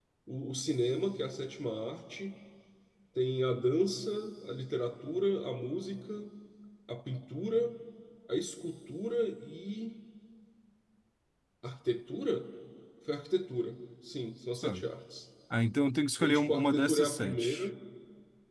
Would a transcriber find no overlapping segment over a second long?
No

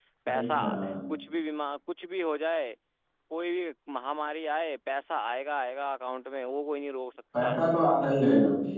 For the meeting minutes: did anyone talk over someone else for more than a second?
No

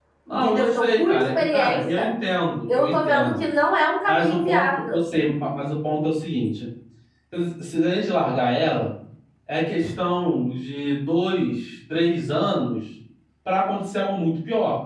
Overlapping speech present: Yes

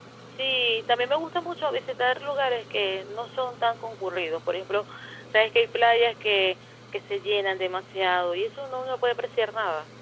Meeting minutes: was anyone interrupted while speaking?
No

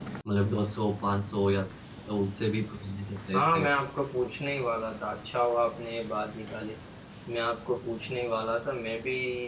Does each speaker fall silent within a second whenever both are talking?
Yes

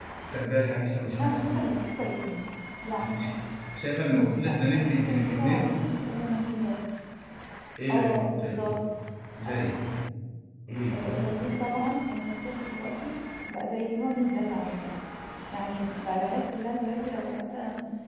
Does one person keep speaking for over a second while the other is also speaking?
Yes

